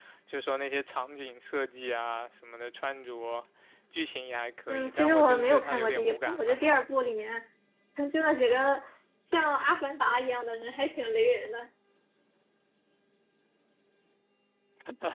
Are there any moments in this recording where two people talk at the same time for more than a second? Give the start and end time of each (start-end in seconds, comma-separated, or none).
4.7-6.6